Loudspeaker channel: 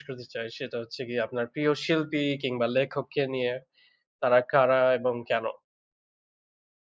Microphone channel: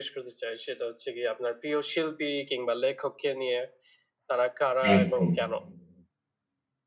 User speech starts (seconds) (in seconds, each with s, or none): 4.9 s